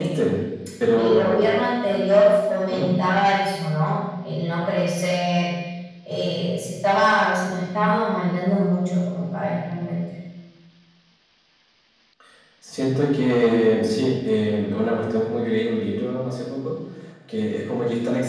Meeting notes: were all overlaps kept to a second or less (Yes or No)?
Yes